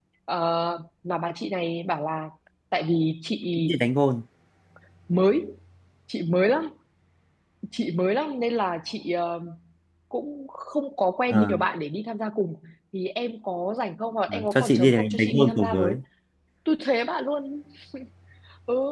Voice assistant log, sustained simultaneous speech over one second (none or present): present